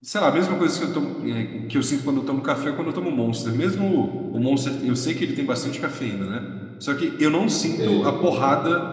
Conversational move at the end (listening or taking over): listening